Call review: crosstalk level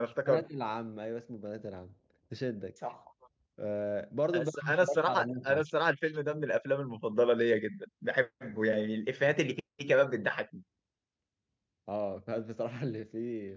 present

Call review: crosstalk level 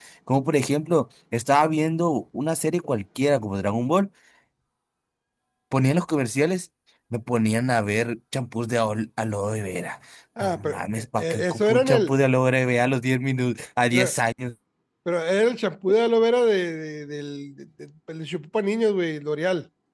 present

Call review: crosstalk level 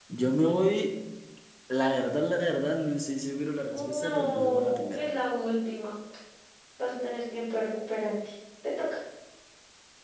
present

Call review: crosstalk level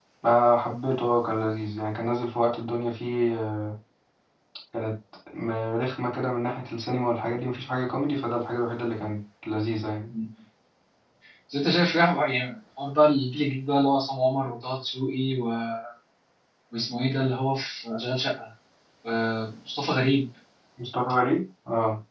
none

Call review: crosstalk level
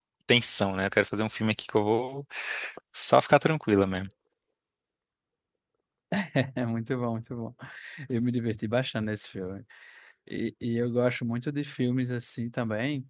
none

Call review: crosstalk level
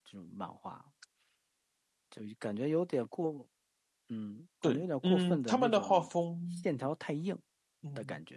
present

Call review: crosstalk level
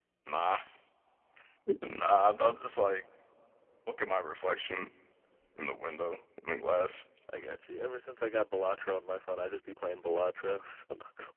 none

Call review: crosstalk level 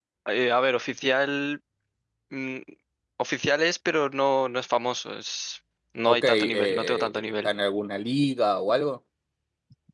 present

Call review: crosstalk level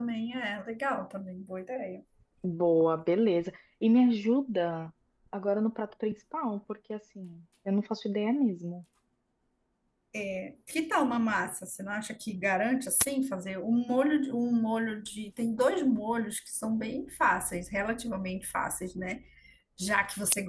none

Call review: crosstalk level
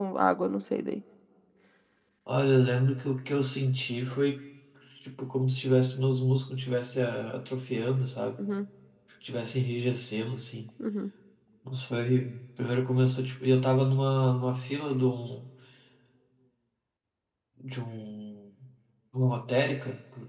none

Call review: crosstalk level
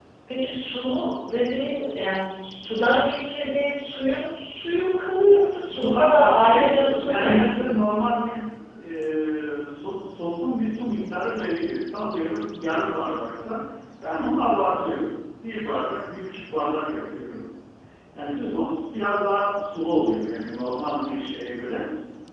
present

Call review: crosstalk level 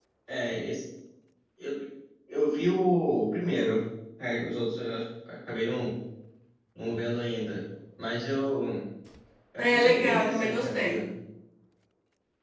present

